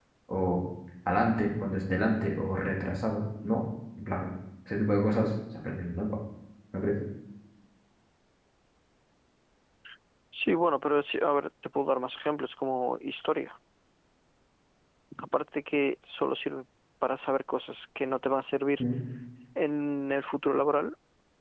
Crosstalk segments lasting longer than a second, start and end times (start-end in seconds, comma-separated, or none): none